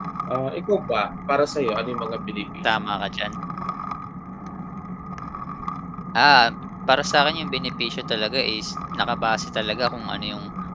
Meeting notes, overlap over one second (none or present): none